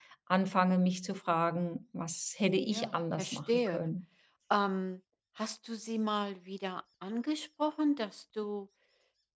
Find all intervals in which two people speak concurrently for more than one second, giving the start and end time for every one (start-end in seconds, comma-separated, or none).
2.7-3.9